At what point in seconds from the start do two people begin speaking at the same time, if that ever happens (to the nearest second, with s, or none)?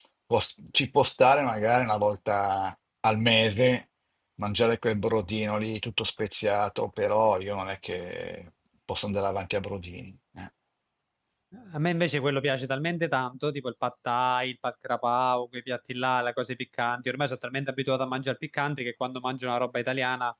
none